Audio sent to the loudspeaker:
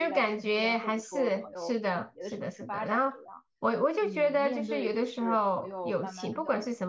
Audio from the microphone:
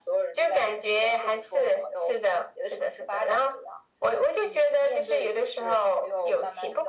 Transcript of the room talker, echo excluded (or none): none